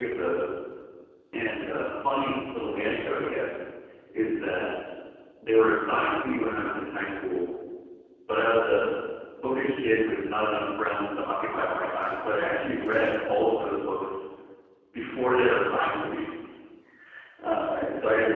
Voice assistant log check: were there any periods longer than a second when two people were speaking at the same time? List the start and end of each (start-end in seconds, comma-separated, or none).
none